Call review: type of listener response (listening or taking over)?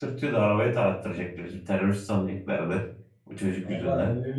taking over